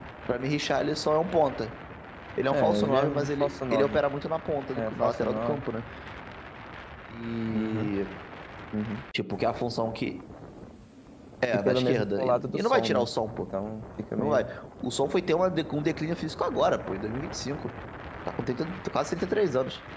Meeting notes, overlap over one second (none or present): present